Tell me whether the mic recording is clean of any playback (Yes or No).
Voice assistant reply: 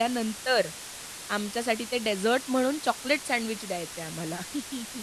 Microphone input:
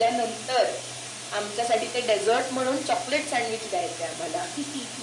No